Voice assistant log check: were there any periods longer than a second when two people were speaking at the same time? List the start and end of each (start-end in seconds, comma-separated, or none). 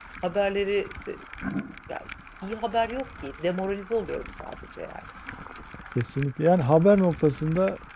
none